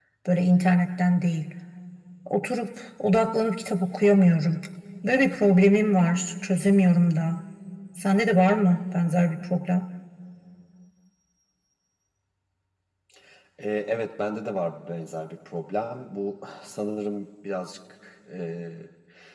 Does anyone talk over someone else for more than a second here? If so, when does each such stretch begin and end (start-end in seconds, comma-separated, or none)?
none